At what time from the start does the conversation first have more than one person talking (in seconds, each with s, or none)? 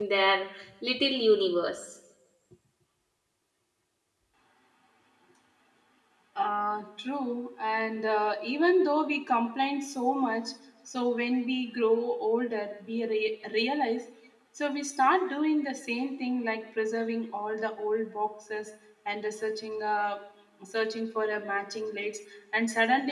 none